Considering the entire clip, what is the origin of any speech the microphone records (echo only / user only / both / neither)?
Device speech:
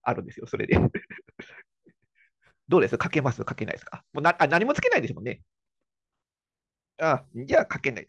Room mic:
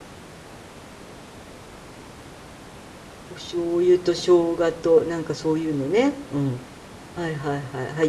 user only